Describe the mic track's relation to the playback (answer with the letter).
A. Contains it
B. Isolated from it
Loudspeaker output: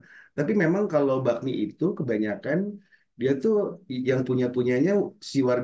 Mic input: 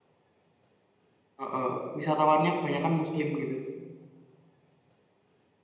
B